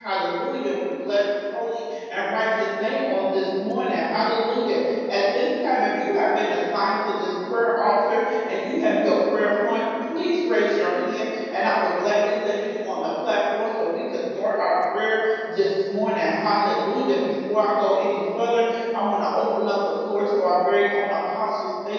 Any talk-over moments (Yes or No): No